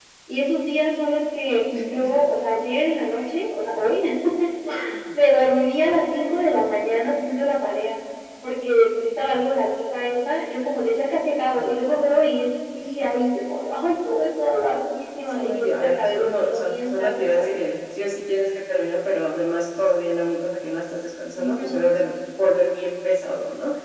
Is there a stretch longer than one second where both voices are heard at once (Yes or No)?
Yes